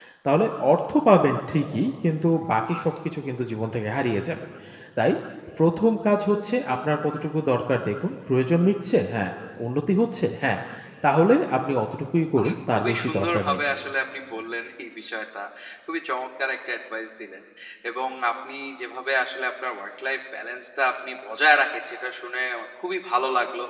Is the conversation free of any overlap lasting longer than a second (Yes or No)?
No